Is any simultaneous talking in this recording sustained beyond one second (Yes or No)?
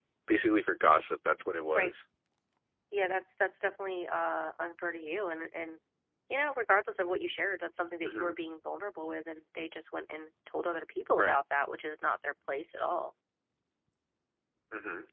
No